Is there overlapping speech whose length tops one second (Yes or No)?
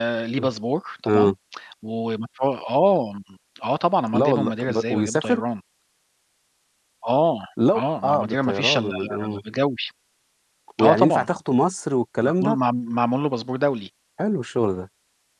Yes